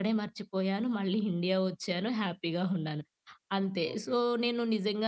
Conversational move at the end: listening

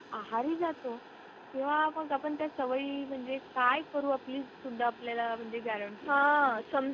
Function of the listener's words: taking over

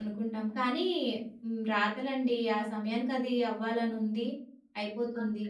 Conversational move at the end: listening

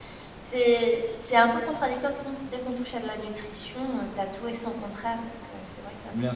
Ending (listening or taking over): taking over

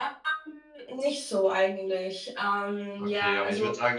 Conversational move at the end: taking over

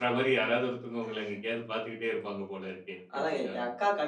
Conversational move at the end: taking over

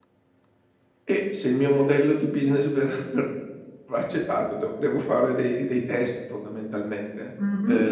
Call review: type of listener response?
taking over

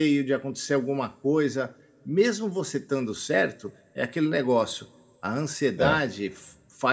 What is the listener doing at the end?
listening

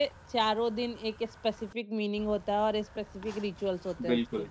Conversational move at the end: taking over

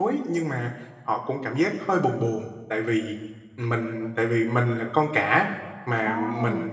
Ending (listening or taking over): listening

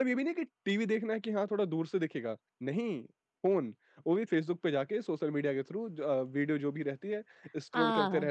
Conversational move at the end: taking over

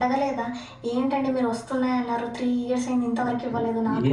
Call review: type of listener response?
taking over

